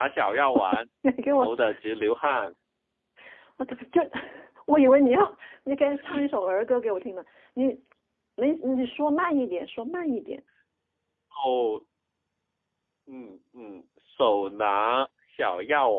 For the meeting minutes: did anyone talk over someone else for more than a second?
No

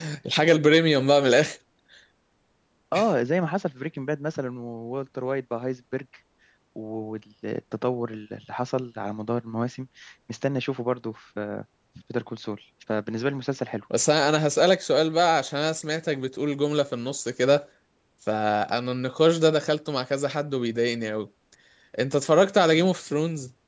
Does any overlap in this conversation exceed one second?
No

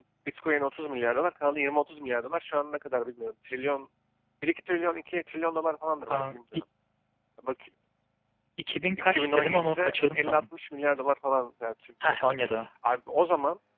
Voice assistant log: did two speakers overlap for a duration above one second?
Yes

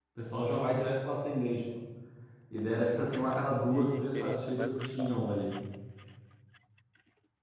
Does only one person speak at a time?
No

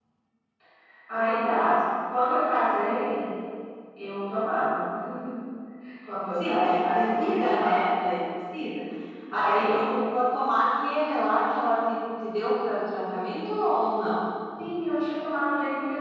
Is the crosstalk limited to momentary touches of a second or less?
No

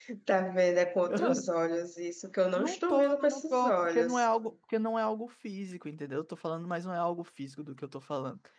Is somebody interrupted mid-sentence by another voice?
Yes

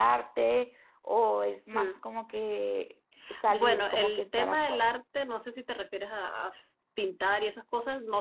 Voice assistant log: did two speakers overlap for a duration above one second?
Yes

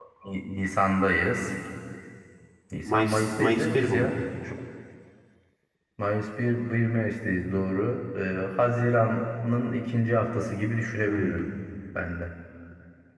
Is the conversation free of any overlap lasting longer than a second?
No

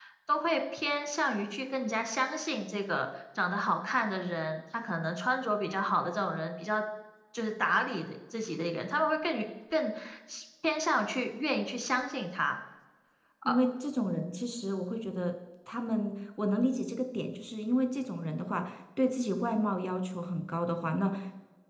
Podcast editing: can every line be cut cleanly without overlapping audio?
Yes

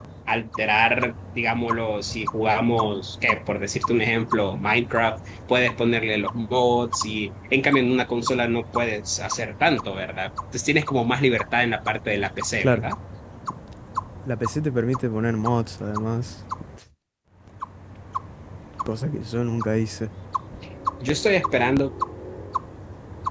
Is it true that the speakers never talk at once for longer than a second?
Yes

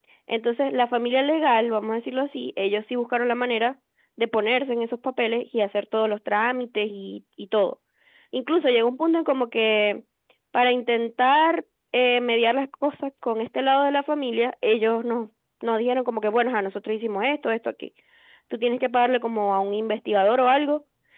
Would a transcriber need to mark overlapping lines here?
No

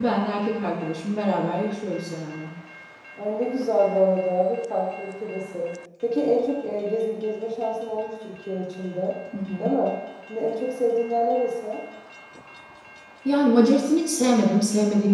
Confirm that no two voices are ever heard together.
Yes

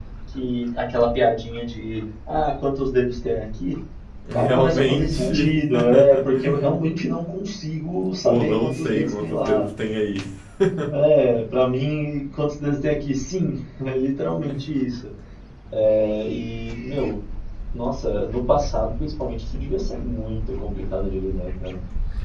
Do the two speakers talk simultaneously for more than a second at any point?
Yes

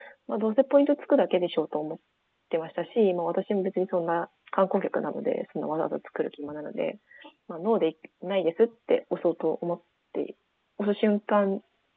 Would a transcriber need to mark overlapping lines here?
No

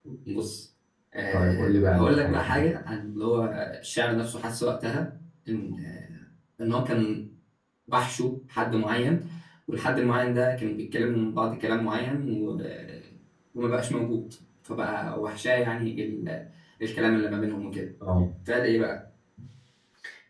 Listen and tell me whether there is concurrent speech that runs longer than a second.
Yes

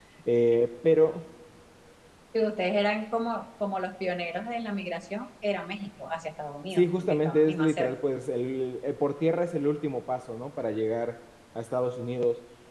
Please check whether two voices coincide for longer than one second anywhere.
Yes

